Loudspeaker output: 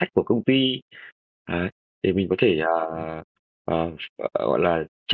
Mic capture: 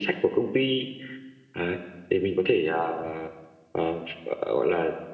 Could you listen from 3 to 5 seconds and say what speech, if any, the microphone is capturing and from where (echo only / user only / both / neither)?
echo only